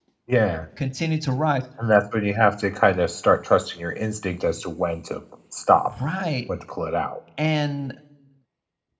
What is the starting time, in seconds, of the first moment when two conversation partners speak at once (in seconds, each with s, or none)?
none